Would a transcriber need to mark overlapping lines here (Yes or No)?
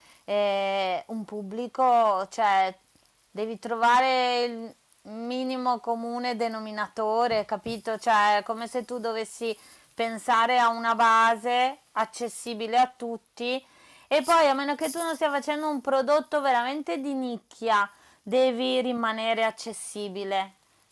No